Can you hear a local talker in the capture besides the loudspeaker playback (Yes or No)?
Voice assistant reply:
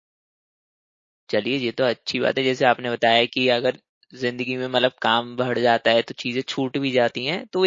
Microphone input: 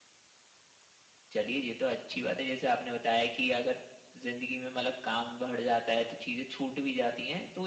No